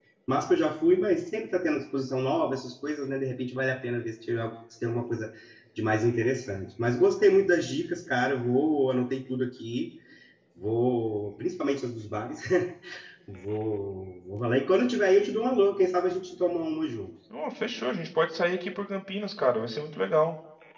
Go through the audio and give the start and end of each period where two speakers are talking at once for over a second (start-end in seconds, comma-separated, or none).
none